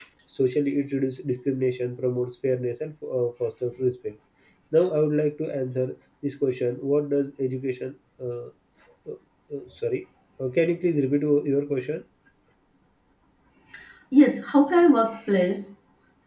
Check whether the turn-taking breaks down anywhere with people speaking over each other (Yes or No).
No